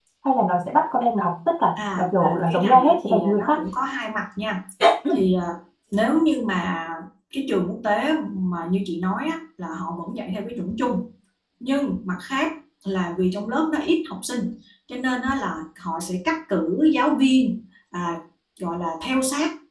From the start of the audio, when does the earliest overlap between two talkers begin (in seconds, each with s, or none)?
1.8 s